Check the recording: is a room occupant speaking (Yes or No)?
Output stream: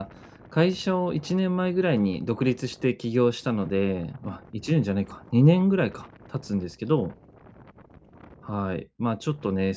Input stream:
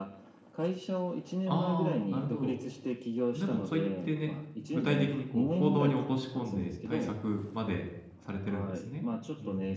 Yes